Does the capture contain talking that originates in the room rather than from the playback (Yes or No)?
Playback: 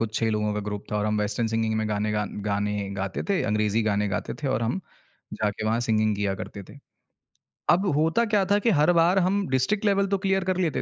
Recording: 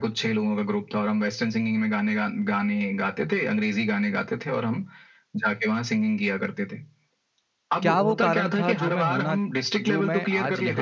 Yes